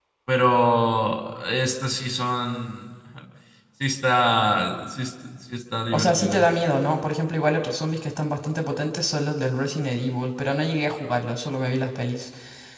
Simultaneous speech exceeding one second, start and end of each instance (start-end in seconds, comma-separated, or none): none